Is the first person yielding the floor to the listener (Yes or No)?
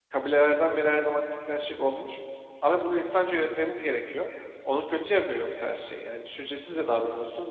Yes